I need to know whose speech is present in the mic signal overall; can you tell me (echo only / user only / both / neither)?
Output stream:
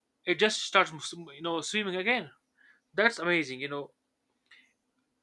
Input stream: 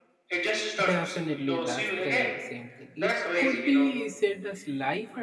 both